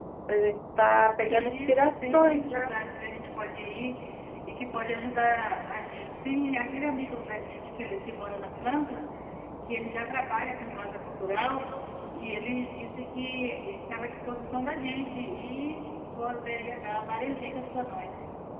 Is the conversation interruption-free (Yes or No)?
No